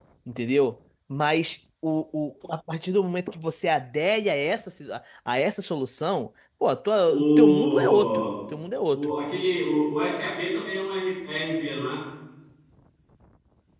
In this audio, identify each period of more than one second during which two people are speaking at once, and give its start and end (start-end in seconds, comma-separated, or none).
7.1-8.3